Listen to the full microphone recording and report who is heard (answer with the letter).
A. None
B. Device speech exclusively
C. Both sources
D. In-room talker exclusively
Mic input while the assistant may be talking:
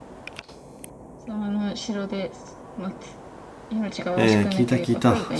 C